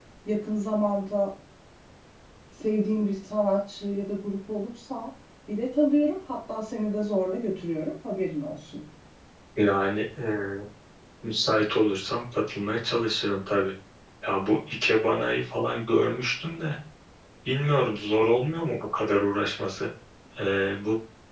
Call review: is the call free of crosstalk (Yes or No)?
Yes